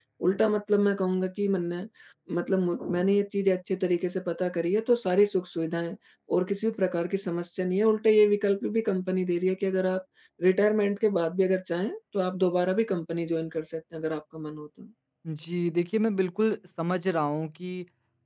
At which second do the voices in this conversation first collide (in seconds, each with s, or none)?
none